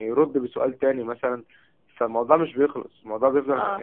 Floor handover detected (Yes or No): Yes